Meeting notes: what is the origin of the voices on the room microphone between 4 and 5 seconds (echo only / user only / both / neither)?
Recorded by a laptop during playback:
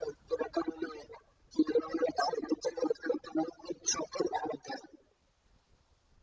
echo only